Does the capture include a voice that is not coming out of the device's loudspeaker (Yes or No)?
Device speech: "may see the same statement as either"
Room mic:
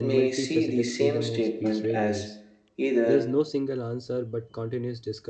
Yes